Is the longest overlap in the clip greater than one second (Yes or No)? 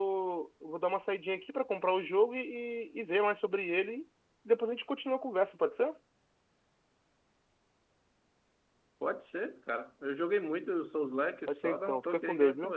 Yes